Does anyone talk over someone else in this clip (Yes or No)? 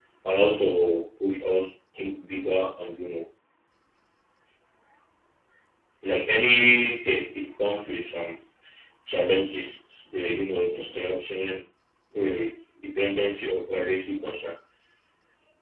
No